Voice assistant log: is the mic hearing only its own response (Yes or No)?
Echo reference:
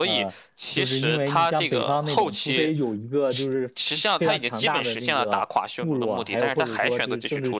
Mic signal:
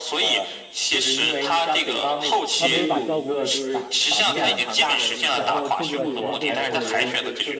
No